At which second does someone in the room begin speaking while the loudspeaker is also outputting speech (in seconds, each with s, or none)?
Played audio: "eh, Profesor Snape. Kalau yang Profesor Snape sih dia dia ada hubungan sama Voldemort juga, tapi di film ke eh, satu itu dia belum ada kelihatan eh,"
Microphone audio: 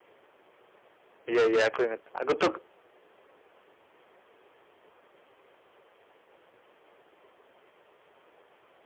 1.3 s